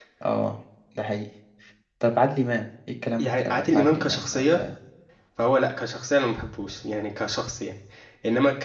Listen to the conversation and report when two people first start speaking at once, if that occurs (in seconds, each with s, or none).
3.2 s